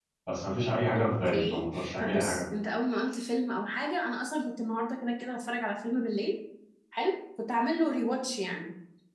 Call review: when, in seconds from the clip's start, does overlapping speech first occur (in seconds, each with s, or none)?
0.9 s